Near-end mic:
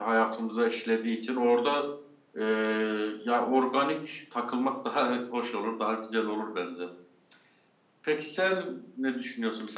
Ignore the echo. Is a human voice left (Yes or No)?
No